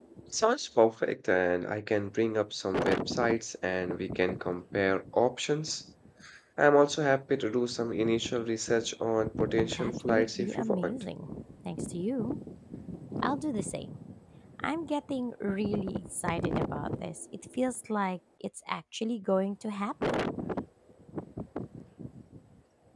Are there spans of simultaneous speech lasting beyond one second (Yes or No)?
Yes